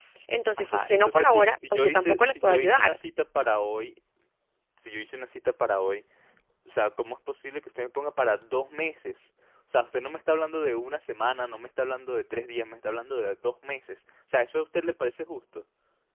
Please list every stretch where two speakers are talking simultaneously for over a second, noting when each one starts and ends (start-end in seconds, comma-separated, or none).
0.6-3.0